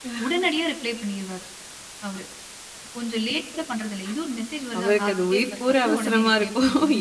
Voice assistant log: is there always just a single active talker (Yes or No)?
No